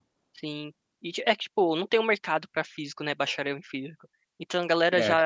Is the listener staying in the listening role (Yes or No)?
Yes